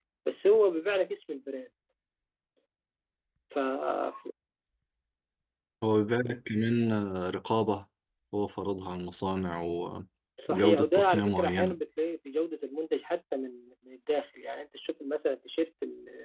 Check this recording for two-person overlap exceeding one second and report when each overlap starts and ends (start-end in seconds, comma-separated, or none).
10.5-11.8